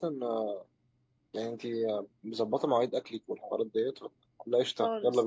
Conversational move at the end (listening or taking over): taking over